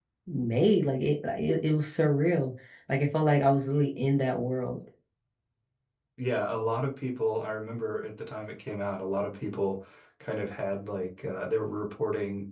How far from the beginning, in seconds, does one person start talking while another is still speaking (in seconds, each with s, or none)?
none